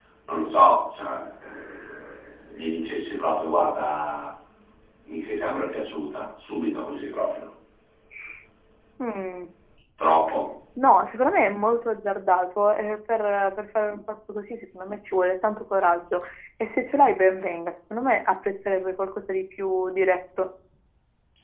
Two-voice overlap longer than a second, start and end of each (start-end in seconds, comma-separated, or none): none